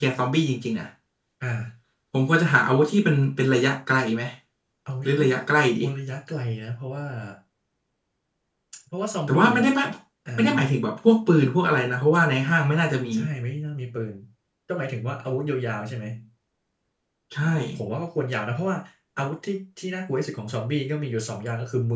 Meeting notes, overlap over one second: none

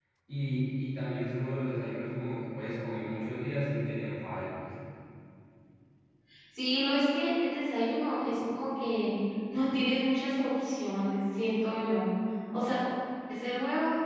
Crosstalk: none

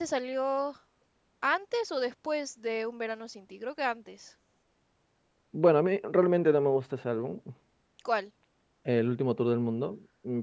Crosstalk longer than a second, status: none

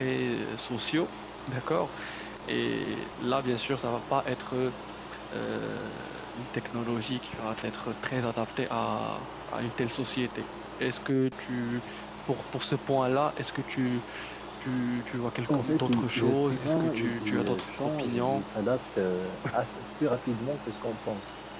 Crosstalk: present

